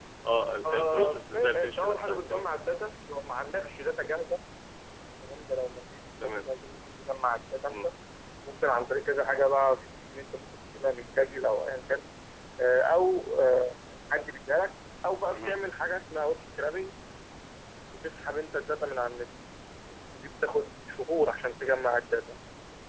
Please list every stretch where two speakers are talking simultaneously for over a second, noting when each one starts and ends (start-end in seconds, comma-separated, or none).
0.6-2.4